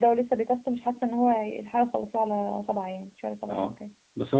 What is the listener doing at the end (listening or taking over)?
taking over